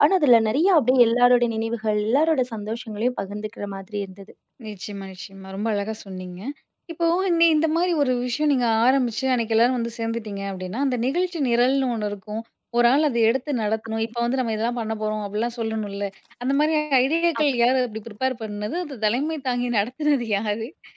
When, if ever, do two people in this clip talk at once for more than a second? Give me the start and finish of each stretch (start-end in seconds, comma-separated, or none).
none